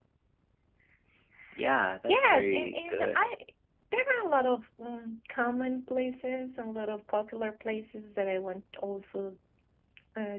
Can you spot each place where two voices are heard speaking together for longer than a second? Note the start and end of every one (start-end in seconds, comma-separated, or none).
2.0-3.2